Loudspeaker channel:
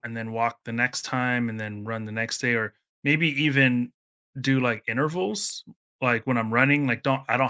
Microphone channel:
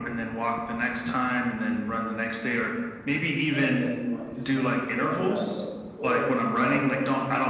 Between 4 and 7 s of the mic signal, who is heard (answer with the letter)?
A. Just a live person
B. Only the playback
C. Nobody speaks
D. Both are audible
D